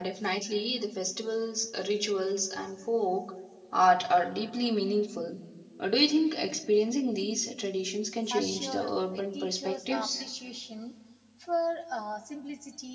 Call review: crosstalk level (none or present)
present